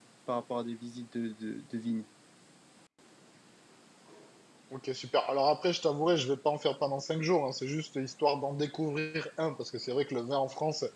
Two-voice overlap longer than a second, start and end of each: none

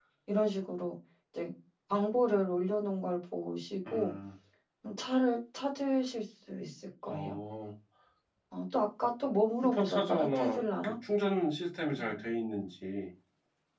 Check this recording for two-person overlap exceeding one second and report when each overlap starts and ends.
9.6-10.9

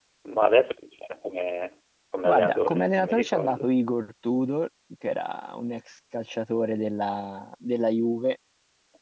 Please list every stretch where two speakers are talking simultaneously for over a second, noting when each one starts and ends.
2.2-3.7

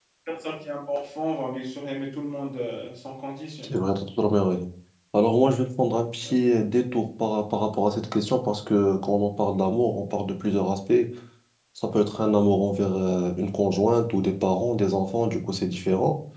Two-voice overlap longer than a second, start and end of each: none

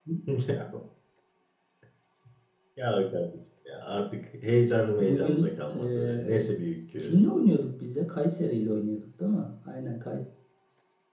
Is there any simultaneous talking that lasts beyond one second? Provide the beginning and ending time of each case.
5.0-6.5

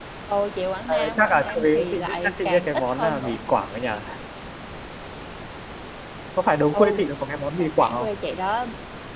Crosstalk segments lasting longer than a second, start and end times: 0.9-3.4

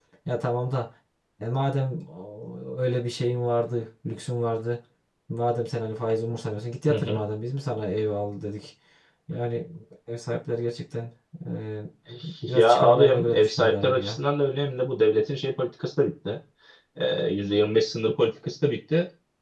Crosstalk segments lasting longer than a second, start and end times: 12.5-14.2

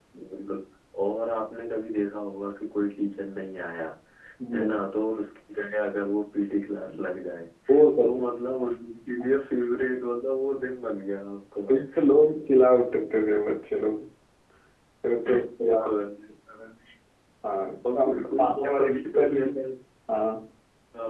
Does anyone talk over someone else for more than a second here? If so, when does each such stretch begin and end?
17.9-19.4

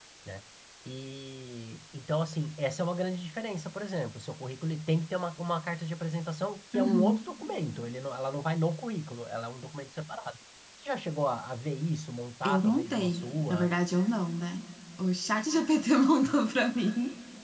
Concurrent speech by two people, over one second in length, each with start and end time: 12.4-13.7

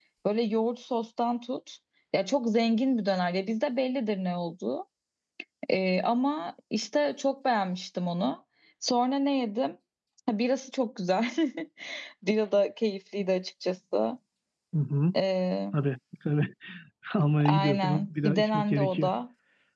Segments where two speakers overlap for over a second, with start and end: 17.4-19.1

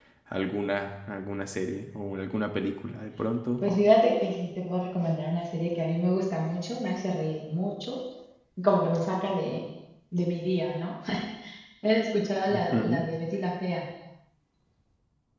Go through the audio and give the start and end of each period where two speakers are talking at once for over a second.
none

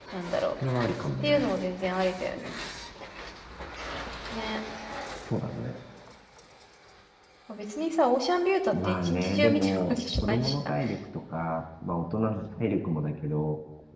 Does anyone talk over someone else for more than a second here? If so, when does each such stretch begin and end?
8.7-10.7

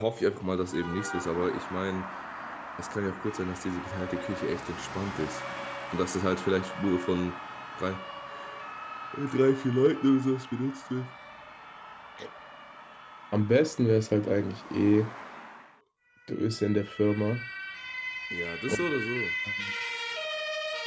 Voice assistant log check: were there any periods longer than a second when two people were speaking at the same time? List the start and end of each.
none

